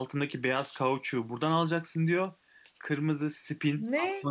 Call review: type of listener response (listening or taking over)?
listening